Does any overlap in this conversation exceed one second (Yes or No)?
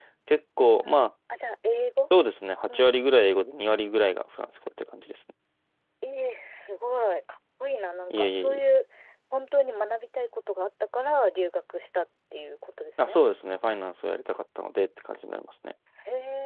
No